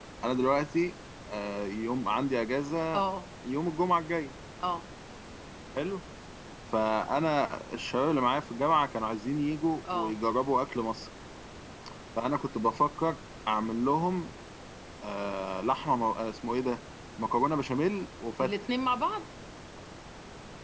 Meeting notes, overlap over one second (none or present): none